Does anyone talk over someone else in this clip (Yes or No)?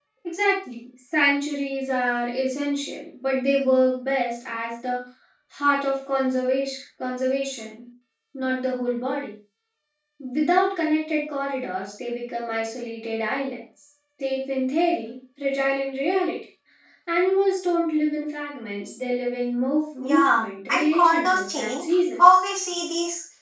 Yes